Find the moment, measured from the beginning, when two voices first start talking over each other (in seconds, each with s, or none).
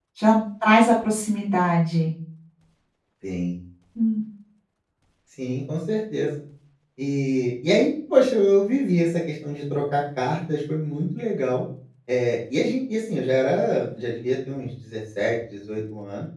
none